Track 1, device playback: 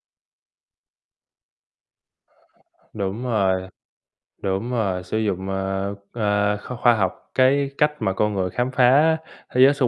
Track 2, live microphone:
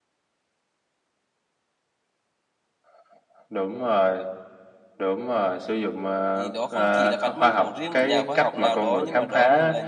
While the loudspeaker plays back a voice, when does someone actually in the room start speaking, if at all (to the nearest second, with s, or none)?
6 s